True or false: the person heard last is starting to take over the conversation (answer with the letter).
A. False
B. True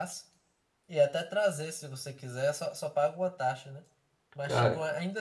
A